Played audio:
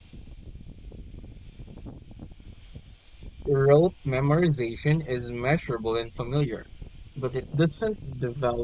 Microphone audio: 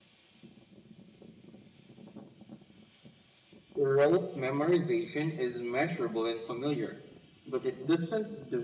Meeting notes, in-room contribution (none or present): none